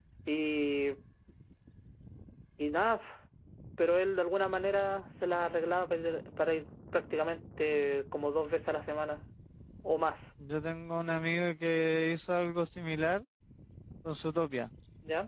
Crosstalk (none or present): none